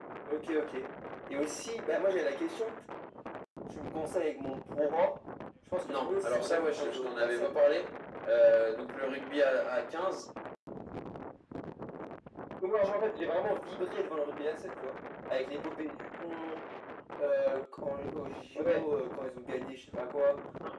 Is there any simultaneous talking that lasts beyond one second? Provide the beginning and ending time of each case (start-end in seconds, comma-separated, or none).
5.8-7.7